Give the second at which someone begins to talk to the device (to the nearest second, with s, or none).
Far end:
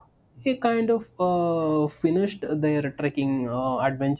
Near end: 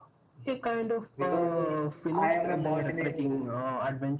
1 s